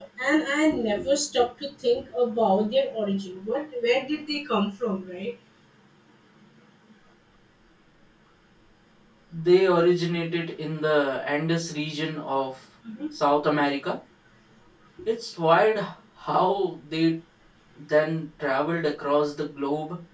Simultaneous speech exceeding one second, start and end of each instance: none

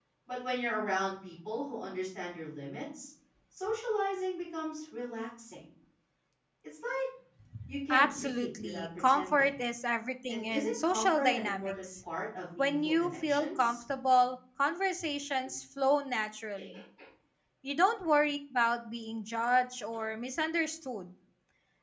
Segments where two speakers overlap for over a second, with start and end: 7.9-9.5, 10.3-11.9, 12.6-13.8

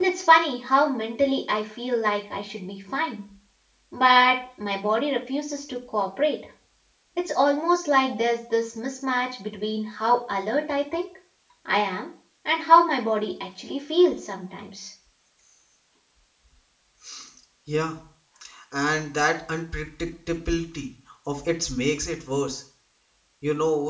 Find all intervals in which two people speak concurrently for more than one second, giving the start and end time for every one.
none

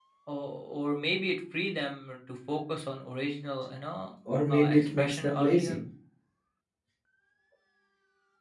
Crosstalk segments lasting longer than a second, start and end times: 4.5-5.8

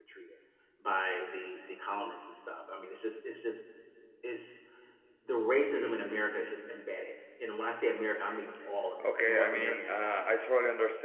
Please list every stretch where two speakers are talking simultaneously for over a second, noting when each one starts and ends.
9.0-10.4

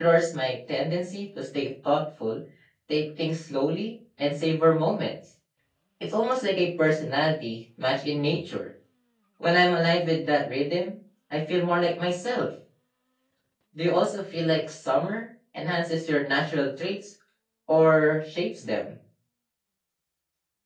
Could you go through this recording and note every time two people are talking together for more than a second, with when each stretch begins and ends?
none

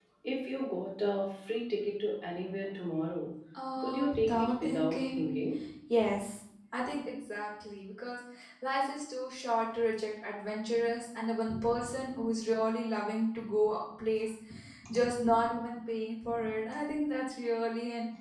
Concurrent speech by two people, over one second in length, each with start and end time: 3.8-5.4

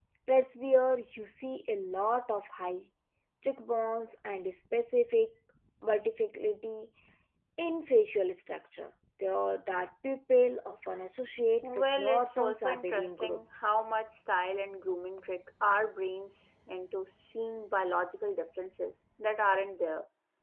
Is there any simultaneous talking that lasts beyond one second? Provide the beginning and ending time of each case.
11.6-13.7

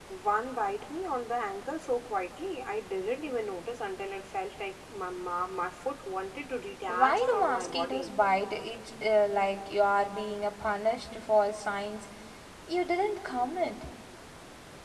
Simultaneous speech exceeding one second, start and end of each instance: 6.9-8.1

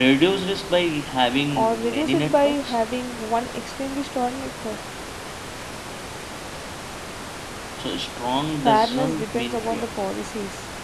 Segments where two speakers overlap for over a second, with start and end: 1.5-2.8, 8.6-9.9

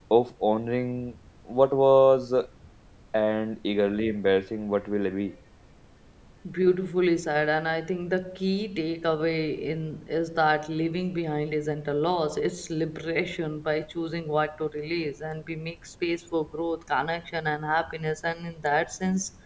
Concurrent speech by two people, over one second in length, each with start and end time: none

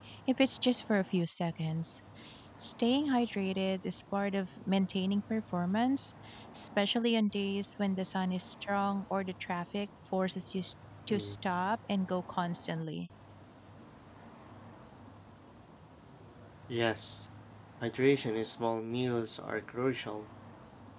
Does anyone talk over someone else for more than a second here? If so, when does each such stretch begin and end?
none

